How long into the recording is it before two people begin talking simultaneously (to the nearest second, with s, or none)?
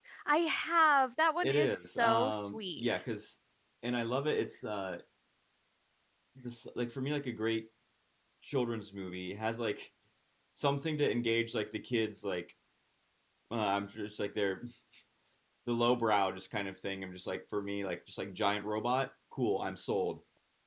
1 s